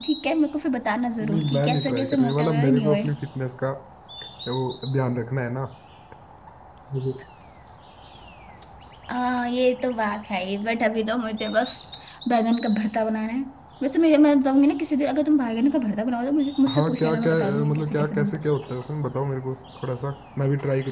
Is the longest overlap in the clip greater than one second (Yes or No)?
Yes